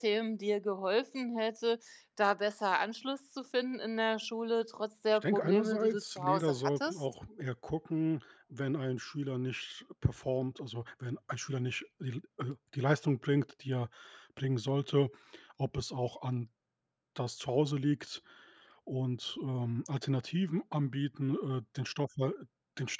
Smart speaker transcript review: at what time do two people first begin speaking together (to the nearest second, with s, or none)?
5 s